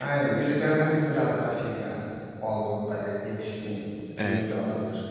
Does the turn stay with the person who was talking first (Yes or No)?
Yes